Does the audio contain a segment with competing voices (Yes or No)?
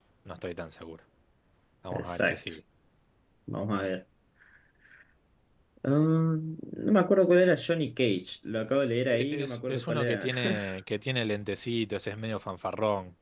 Yes